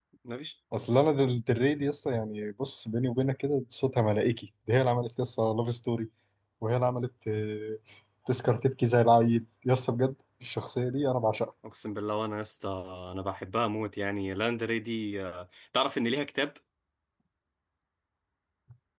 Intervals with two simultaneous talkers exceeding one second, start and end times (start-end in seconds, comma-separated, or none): none